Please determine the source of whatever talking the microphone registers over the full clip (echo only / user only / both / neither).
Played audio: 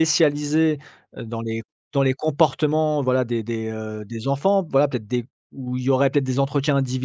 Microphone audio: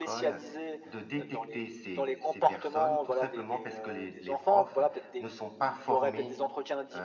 both